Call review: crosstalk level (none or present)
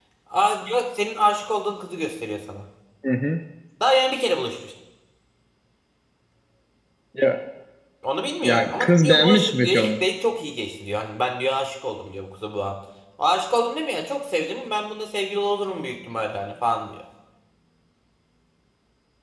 present